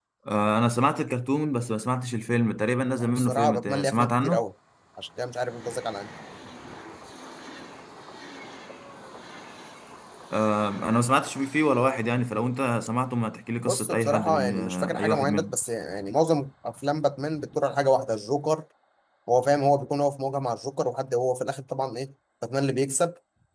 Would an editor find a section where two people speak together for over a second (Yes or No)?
Yes